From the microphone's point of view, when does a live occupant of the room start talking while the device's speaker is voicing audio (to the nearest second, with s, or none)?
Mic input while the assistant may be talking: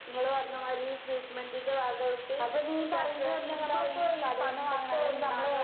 none